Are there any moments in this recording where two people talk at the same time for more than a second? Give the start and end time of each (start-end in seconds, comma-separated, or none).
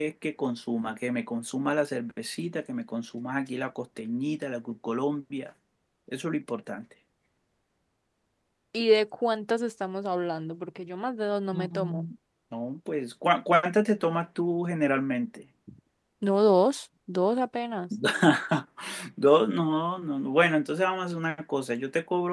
none